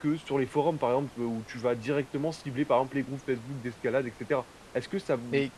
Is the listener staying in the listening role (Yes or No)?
Yes